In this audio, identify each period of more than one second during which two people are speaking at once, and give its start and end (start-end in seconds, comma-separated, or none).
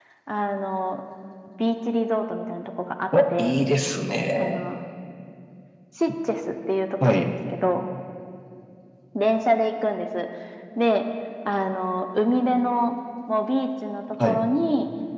none